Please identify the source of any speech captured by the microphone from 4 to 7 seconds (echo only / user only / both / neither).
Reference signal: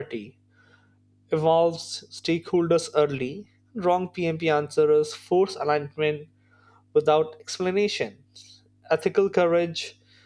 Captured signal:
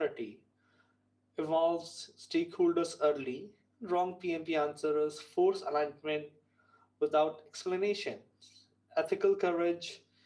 echo only